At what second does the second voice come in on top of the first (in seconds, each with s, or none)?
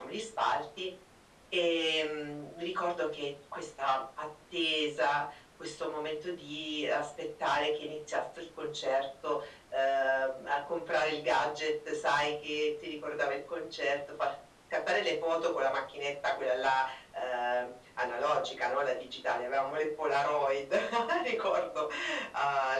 none